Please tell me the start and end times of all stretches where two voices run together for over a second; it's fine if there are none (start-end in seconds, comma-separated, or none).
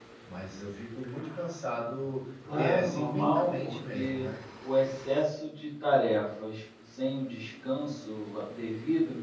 2.5-4.2